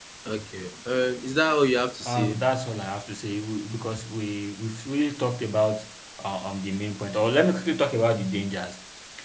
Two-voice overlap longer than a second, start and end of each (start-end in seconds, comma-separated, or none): none